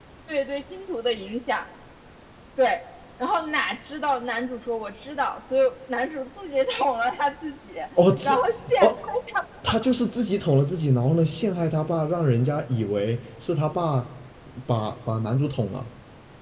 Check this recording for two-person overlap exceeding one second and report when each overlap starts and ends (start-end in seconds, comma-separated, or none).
none